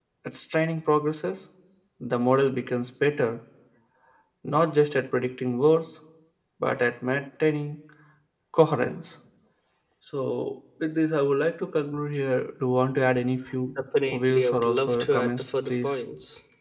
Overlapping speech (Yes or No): Yes